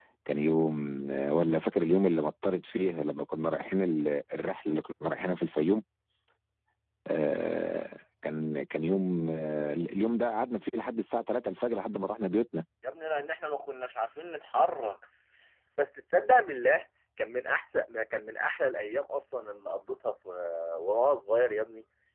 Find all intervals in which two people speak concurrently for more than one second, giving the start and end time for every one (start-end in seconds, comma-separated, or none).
none